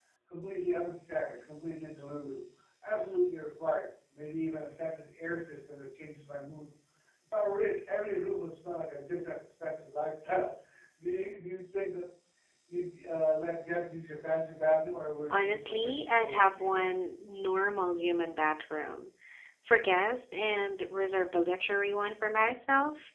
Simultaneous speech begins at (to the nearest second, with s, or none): 15 s